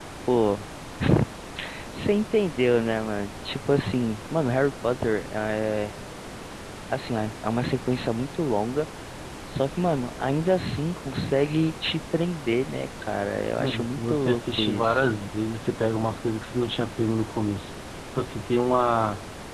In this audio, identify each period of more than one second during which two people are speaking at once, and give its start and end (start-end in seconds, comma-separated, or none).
13.6-15.0